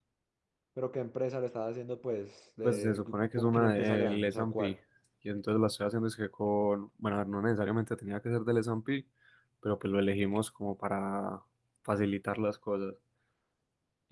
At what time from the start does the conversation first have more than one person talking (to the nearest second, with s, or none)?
3 s